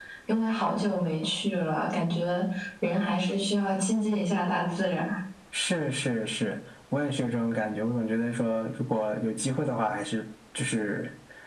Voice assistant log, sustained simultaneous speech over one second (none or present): none